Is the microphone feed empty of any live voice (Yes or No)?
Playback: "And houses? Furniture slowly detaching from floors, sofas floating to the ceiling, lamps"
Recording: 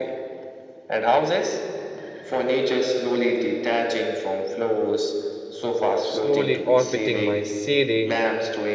No